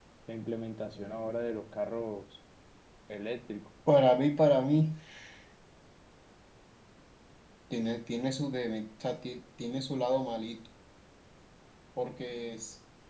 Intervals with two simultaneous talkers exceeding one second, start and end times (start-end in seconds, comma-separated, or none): none